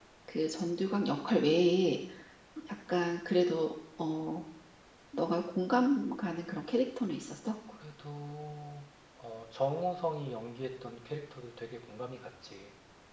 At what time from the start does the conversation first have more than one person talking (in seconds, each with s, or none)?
none